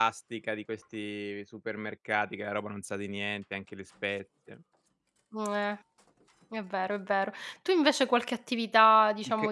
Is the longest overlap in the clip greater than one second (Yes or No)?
No